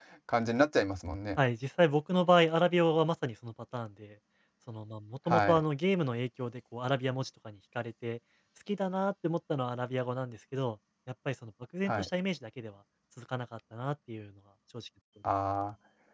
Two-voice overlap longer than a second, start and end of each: none

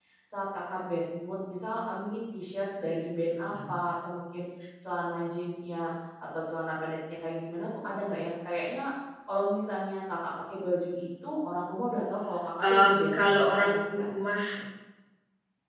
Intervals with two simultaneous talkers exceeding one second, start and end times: 12.6-13.8

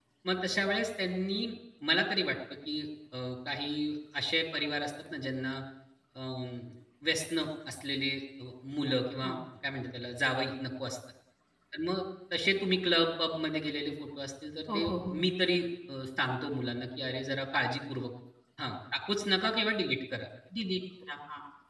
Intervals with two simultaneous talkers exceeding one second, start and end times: none

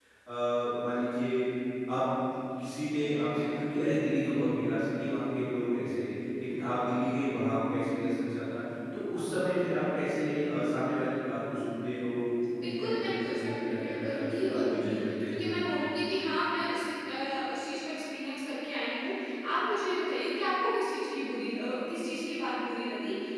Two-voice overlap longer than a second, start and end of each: 12.6-15.6

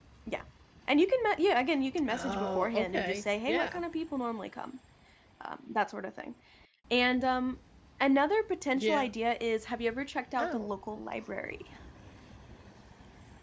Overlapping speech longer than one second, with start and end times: 2.1-3.8

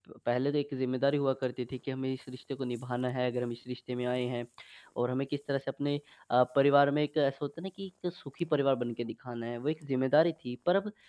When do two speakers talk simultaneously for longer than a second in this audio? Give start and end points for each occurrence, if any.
none

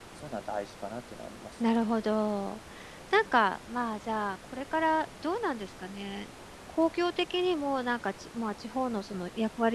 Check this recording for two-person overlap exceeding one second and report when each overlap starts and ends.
none

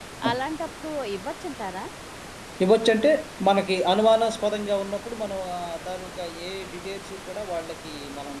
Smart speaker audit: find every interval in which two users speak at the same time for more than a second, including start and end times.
none

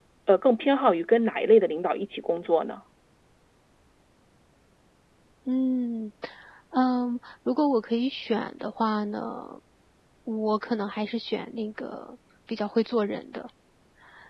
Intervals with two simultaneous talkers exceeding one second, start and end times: none

